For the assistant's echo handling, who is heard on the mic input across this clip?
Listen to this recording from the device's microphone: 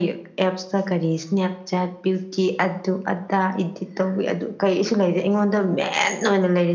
echo only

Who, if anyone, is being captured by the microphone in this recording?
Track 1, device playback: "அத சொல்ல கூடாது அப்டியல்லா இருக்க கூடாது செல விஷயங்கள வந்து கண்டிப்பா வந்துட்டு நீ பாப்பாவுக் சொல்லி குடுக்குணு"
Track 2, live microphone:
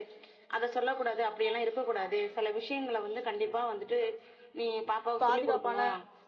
both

